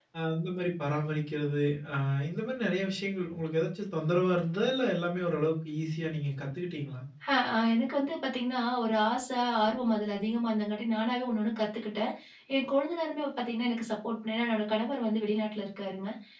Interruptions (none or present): none